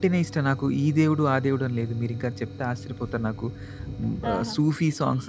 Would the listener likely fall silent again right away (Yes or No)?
Yes